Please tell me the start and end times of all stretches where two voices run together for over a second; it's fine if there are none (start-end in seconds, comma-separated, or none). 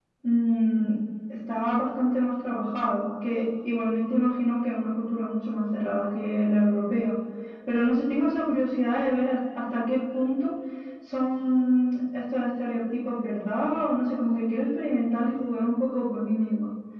none